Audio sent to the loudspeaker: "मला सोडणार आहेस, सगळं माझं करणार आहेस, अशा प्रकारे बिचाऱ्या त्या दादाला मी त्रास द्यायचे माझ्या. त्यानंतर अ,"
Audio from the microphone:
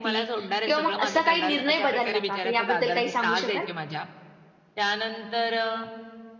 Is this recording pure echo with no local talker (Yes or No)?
No